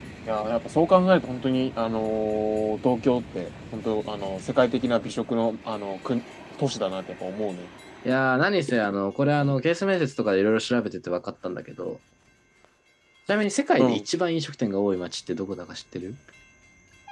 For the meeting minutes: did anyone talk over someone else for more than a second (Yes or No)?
No